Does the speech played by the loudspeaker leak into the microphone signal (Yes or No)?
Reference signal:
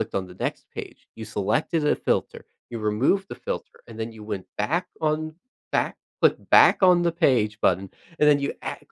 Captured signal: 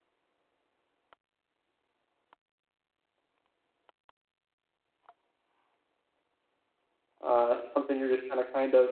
No